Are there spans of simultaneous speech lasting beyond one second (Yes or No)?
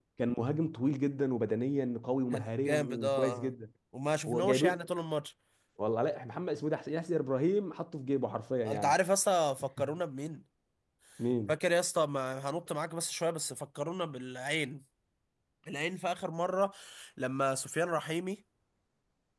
Yes